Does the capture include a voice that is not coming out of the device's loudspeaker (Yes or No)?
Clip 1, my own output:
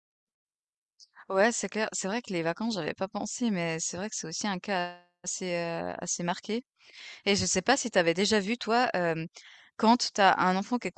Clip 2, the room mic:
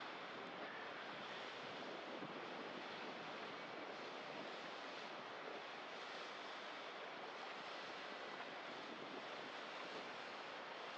No